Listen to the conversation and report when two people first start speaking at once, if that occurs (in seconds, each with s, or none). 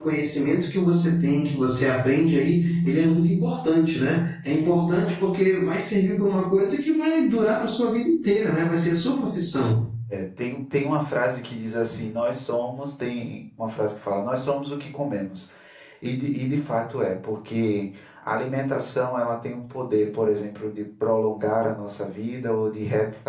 none